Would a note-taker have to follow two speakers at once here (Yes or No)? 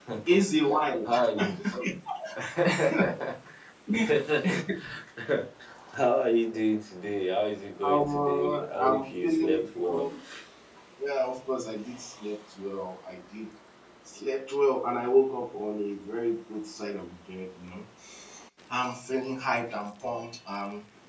Yes